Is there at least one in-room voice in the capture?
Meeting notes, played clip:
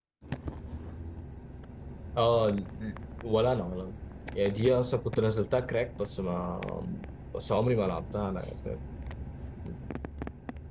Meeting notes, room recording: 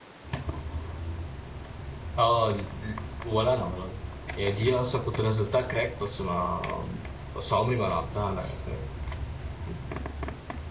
No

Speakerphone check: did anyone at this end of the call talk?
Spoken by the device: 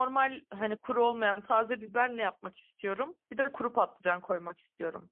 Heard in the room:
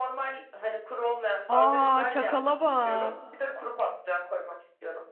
Yes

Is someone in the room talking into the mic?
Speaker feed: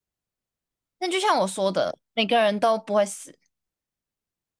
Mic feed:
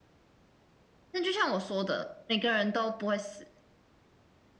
No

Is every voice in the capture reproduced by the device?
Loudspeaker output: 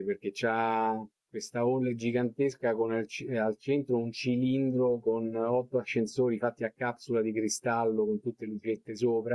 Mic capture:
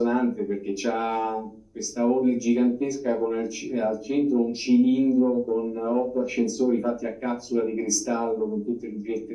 Yes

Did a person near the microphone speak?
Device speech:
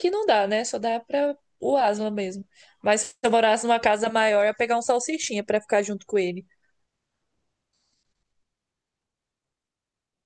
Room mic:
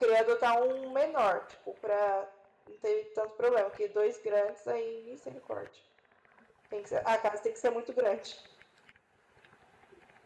Yes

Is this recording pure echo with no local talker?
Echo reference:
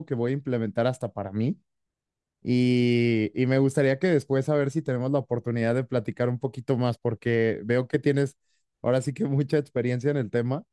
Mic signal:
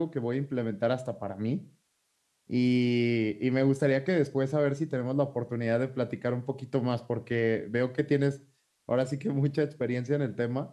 Yes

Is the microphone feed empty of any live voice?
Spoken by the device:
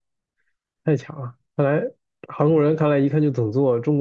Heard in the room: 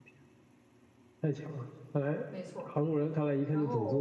No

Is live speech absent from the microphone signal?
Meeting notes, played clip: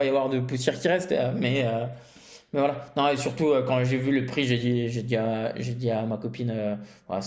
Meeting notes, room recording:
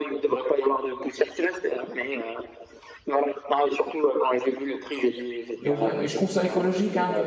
No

